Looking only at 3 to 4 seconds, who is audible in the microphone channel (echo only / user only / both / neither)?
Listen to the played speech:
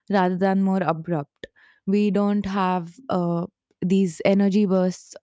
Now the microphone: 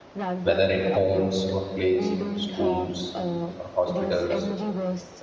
both